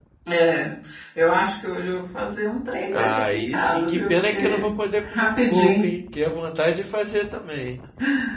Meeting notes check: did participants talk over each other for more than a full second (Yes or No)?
Yes